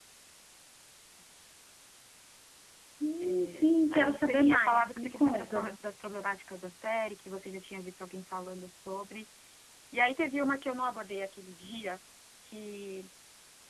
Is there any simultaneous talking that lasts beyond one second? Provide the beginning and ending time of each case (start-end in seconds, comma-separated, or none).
3.9-5.7